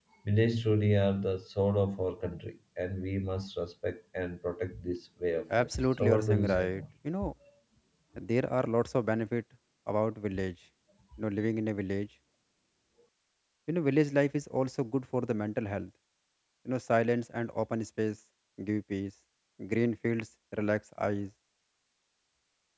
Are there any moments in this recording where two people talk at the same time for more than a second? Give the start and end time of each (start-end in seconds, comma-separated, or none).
5.6-6.8